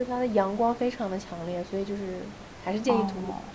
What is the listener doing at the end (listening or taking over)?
taking over